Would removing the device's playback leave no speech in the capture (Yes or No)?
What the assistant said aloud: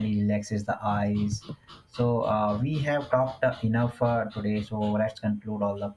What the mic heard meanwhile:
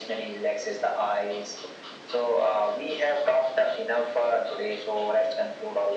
Yes